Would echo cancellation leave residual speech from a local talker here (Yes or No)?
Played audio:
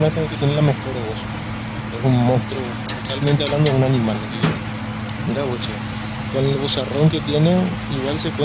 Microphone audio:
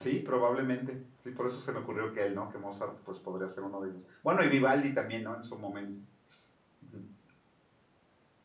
Yes